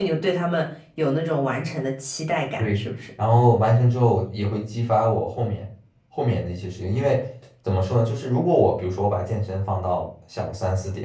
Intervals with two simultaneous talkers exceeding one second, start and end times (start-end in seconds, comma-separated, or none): none